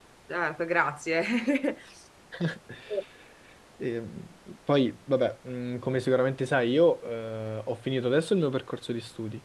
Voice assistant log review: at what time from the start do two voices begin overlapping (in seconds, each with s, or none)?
none